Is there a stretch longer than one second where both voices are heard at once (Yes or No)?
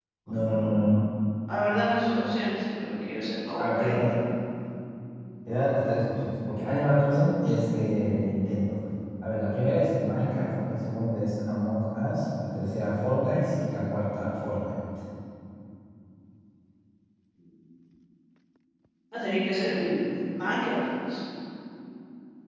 No